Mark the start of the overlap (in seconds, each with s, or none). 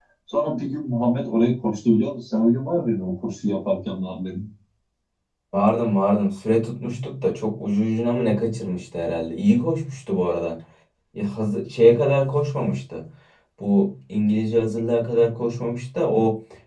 none